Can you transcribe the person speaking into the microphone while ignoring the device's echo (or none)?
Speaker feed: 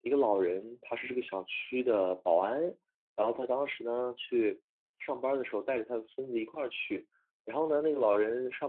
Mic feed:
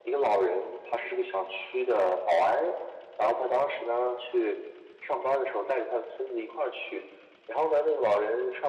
none